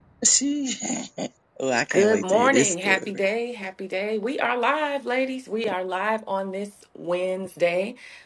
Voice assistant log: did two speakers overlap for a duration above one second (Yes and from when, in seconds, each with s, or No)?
Yes, from 1.9 s